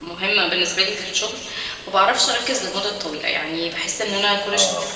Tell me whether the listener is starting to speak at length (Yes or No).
No